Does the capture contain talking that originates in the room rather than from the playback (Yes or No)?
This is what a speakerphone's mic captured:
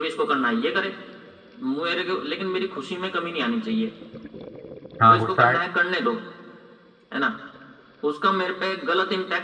Yes